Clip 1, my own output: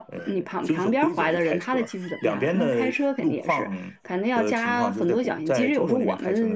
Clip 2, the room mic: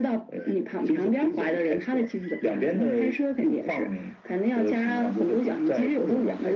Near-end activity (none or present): none